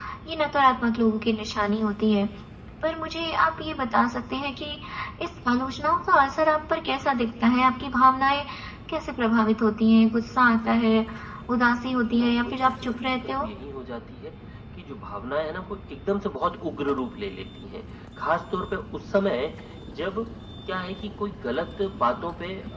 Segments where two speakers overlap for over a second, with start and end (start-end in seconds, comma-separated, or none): 12.1-13.5